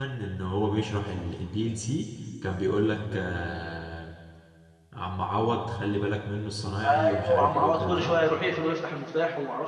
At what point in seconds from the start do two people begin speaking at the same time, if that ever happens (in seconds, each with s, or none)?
6.8 s